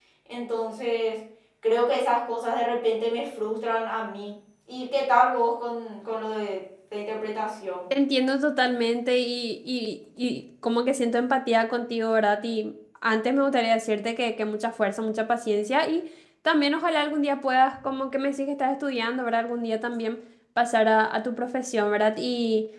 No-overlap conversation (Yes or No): Yes